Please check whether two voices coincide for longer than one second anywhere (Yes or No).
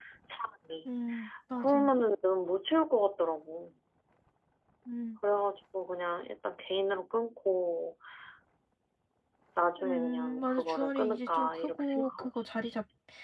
Yes